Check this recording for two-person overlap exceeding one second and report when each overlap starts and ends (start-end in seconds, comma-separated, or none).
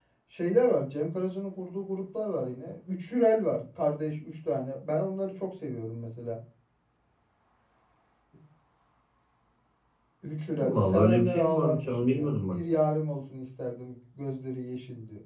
10.6-12.6